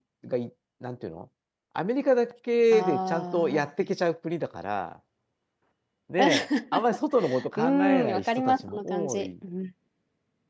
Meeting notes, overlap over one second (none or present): present